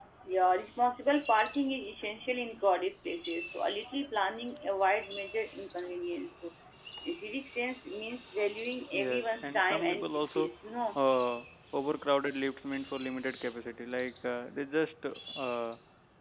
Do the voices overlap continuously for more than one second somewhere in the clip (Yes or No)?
Yes